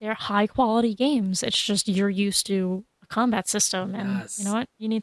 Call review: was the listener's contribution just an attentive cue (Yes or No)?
No